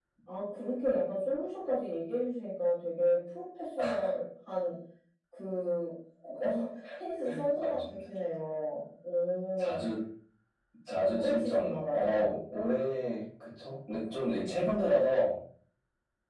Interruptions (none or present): present